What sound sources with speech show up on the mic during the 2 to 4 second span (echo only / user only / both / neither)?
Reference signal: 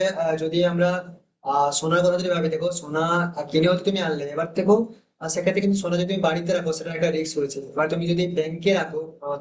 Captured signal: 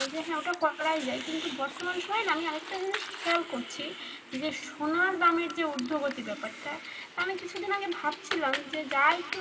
user only